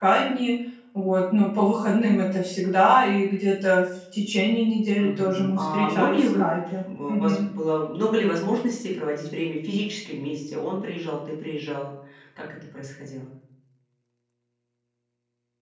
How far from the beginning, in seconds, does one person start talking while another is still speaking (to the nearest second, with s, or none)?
5 s